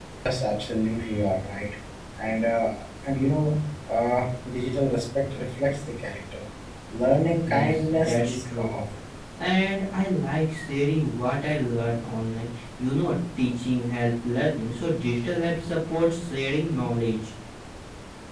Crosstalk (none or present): present